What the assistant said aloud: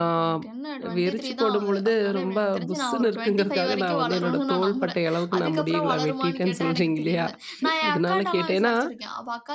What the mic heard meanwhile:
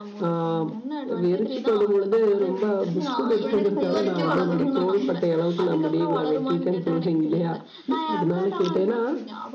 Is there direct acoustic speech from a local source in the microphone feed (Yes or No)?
Yes